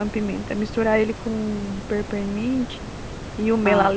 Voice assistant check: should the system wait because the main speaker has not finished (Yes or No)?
Yes